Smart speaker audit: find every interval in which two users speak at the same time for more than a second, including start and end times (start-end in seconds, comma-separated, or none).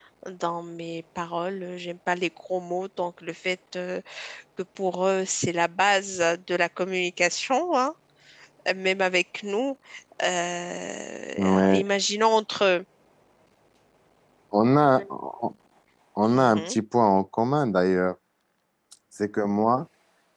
none